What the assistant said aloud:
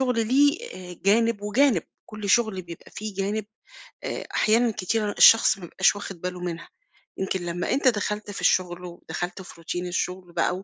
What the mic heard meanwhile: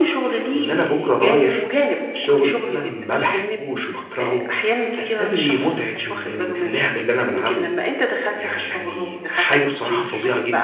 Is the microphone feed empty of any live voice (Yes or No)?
No